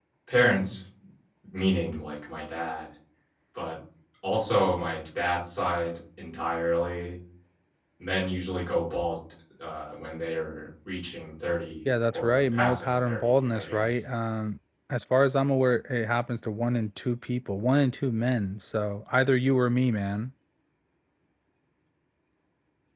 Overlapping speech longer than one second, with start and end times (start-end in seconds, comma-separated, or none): 12.1-14.0